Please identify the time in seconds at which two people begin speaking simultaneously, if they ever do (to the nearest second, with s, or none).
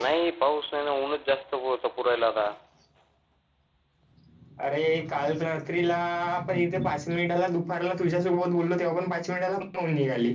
none